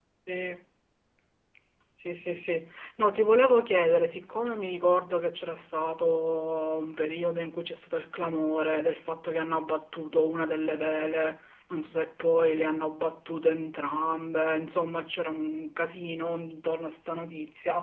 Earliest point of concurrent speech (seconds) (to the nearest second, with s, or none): none